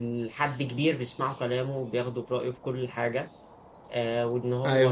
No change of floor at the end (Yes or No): Yes